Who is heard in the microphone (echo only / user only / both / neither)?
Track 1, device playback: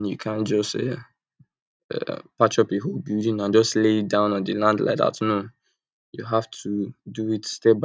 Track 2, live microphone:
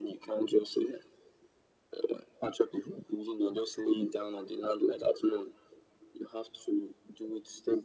echo only